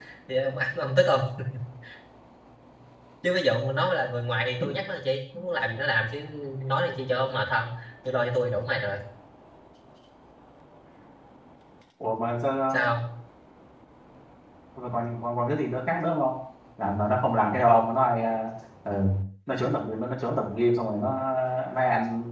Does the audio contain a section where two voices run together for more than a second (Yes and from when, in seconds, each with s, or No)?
No